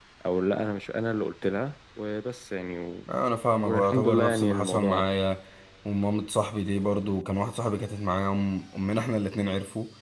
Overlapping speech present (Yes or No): Yes